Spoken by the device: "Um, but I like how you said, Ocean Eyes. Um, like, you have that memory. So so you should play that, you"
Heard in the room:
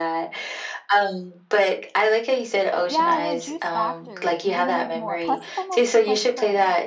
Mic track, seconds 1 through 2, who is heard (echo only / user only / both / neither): echo only